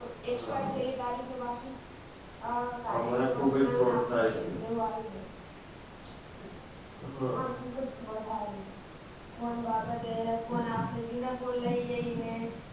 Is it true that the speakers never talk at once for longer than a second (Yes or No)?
No